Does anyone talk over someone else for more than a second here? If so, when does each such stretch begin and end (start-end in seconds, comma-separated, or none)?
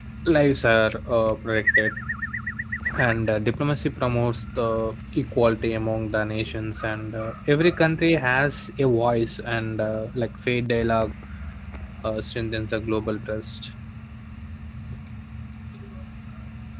none